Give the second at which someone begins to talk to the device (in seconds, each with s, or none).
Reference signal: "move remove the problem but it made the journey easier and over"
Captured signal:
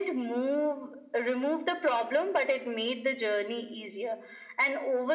none